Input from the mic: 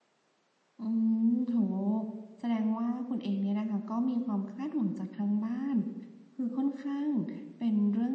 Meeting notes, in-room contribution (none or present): present